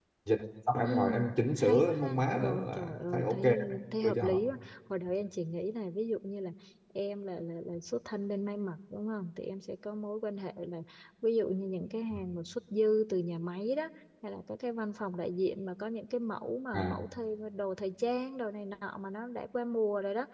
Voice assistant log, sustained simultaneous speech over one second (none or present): present